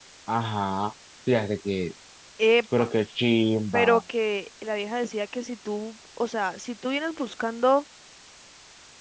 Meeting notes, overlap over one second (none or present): none